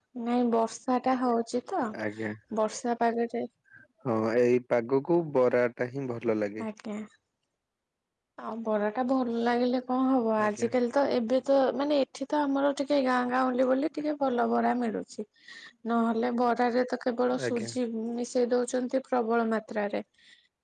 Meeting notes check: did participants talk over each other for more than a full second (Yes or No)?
No